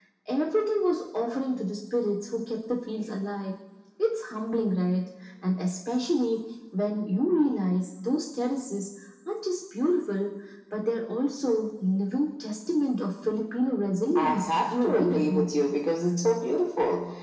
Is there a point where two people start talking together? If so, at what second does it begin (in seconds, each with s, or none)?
14.2 s